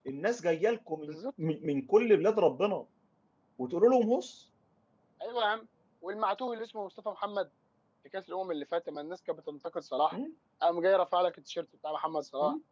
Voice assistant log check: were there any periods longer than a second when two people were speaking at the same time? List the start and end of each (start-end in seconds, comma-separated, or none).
none